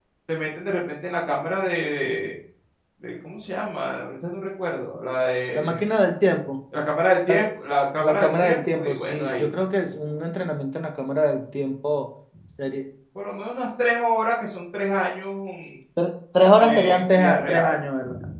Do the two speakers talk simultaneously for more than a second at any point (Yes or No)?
Yes